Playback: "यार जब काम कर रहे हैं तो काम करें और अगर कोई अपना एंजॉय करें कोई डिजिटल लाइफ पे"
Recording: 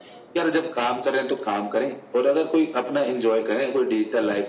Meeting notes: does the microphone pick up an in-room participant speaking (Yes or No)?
No